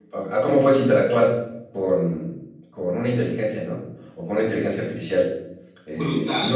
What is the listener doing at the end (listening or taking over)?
taking over